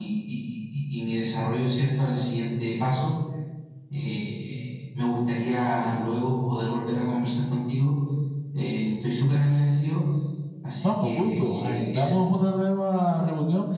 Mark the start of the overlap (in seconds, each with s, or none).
10.8 s